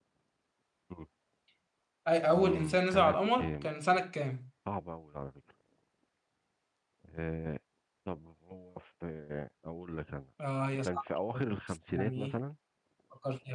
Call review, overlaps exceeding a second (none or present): present